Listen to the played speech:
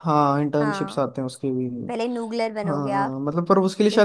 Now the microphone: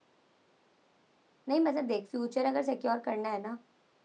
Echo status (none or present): none